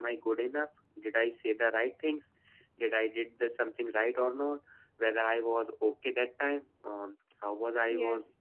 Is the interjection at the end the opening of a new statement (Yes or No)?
No